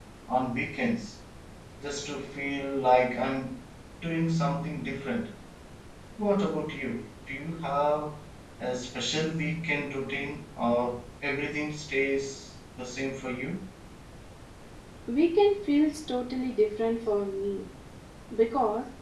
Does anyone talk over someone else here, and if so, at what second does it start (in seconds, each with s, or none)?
none